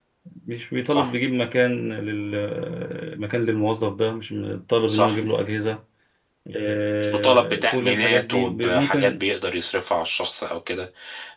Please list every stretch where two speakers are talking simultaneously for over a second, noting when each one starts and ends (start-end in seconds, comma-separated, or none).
7.1-9.2